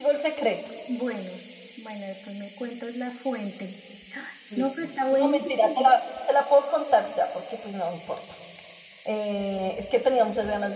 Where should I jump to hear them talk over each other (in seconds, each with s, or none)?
4.5 s